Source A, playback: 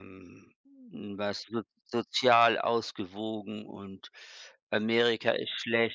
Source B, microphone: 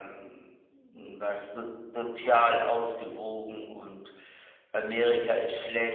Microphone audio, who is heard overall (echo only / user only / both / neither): echo only